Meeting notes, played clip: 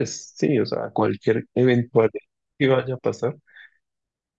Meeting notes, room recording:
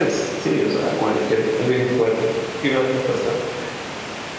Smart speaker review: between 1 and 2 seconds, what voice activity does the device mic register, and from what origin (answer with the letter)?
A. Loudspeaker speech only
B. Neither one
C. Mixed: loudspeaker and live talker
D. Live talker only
A